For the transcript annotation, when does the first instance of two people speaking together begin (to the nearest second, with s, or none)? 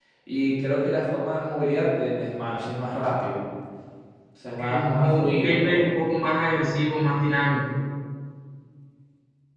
5 s